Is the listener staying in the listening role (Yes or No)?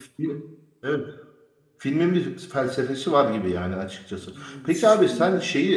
Yes